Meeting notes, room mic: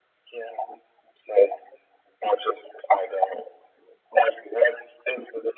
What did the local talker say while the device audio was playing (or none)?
none